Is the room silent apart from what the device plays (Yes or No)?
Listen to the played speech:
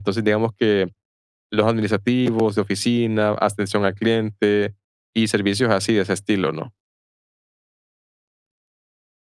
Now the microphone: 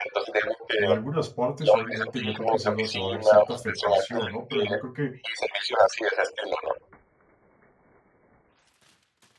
No